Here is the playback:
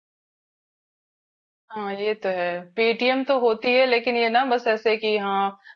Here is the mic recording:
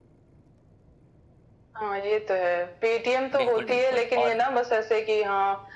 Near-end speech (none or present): present